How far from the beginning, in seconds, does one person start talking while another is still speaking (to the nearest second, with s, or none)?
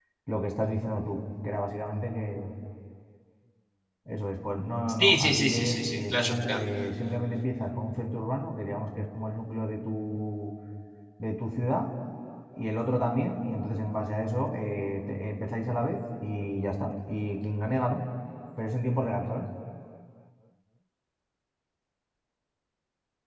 5 s